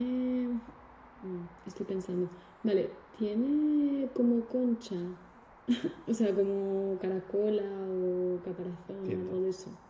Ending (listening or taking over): taking over